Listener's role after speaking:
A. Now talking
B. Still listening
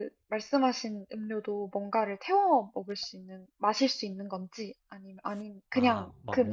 A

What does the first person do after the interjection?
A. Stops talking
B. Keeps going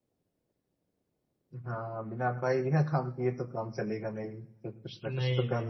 A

